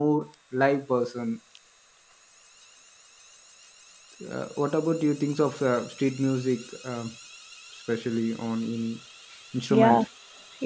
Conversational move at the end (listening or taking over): taking over